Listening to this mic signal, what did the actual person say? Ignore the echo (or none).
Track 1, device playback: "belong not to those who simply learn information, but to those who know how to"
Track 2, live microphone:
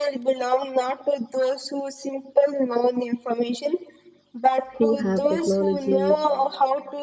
who have technology,